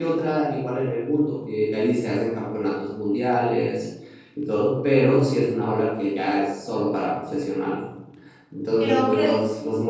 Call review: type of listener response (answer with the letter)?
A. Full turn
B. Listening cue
B